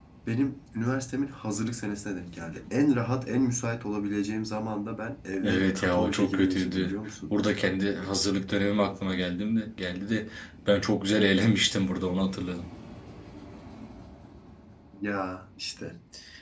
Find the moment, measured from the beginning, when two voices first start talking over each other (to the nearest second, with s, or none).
5 s